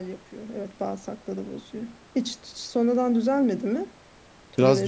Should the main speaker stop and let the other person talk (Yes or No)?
Yes